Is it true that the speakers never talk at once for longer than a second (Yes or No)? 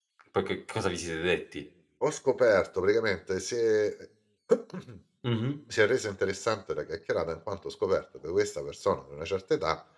Yes